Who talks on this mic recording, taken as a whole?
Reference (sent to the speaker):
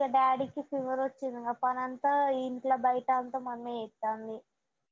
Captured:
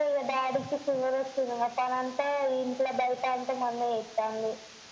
echo only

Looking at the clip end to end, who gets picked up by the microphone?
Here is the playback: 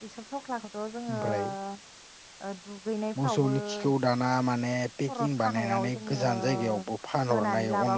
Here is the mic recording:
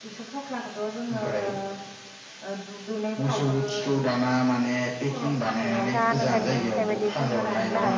both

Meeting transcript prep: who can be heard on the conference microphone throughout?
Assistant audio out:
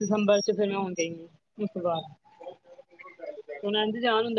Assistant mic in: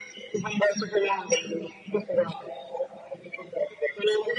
echo only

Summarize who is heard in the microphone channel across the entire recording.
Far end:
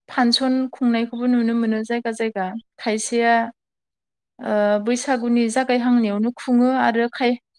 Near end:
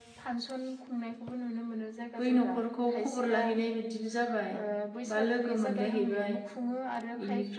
both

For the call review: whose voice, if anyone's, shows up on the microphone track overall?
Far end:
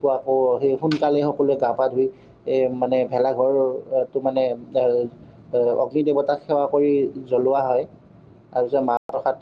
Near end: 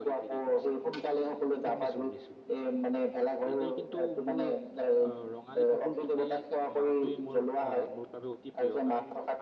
both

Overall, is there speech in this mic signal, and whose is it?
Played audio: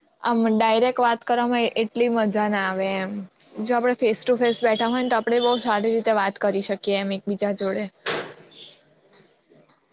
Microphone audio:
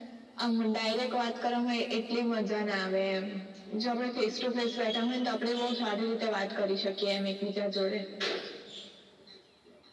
echo only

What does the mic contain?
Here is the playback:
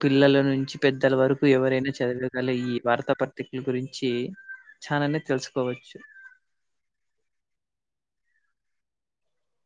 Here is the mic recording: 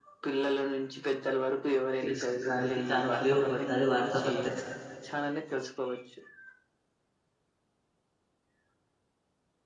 both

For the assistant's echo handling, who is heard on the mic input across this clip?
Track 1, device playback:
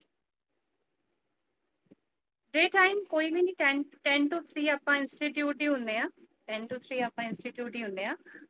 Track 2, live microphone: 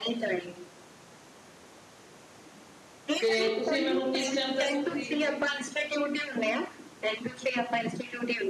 both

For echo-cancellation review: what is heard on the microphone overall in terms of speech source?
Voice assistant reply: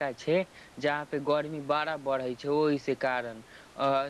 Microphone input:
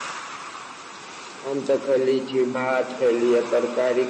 user only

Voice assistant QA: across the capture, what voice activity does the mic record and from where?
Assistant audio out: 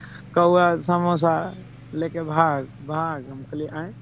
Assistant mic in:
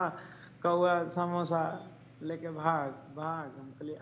echo only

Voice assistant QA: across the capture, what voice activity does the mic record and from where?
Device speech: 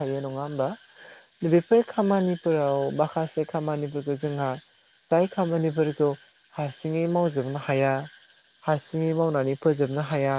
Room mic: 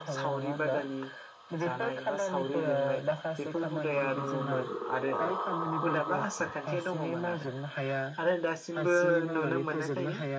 both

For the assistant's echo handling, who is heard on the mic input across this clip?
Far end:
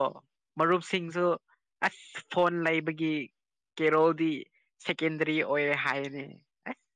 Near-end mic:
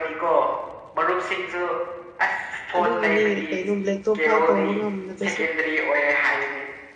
both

